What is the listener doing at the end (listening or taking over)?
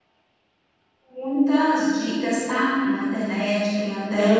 taking over